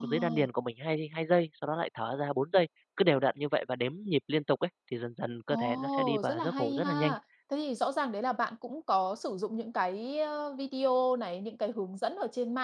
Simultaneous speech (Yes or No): Yes